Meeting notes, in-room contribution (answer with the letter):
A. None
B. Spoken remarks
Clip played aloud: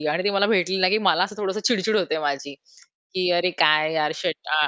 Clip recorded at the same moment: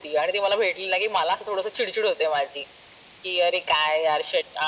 A